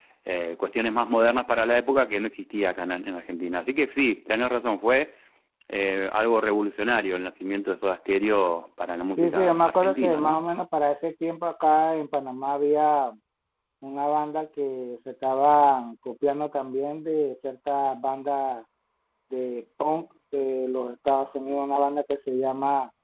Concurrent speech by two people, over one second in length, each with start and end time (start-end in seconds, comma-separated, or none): 9.2-10.4